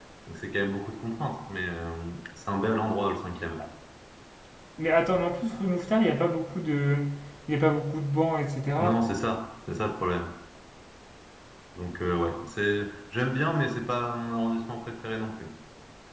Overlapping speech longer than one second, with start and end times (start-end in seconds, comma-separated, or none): none